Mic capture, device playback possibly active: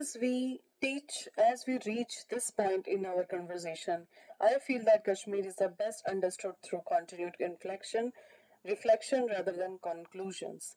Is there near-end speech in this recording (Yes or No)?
No